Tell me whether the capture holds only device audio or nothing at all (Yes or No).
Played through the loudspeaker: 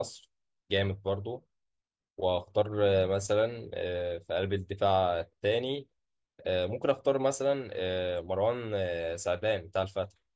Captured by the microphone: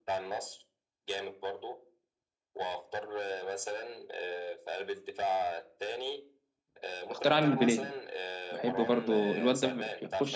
No